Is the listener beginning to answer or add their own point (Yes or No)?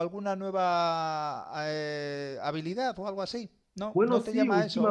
Yes